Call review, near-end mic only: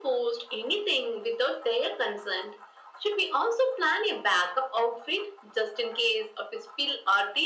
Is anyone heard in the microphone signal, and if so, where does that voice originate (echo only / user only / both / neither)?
echo only